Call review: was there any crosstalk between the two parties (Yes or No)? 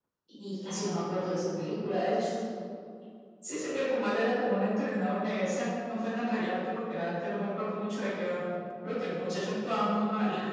No